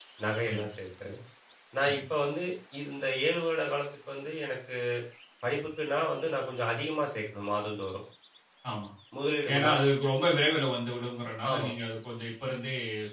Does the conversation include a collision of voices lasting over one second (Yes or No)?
No